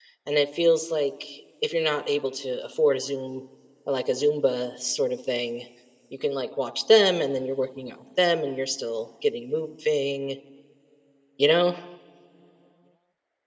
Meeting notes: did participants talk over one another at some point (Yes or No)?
No